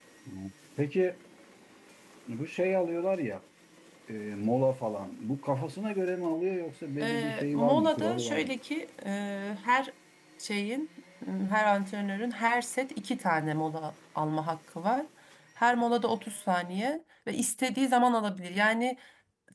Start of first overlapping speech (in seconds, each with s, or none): 7.0 s